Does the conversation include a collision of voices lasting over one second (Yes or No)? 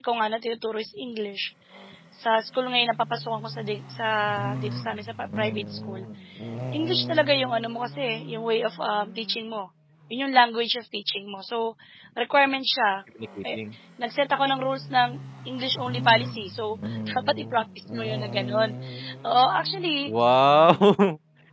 No